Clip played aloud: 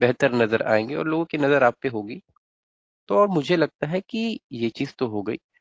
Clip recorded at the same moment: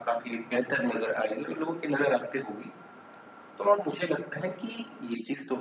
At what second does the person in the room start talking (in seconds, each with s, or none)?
none